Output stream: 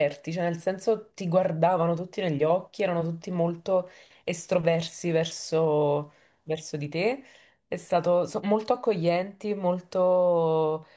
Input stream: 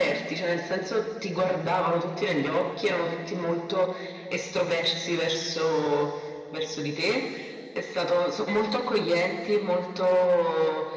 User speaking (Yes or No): No